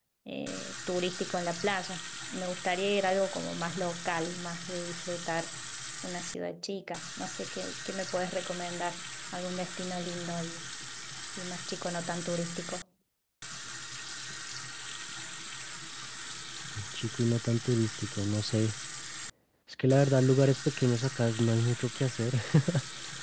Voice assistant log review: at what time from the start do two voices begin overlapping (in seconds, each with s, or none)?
none